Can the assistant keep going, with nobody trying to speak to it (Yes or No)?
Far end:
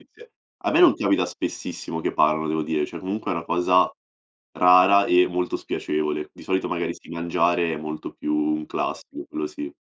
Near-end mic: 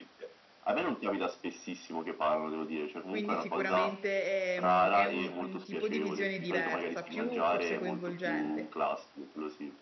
No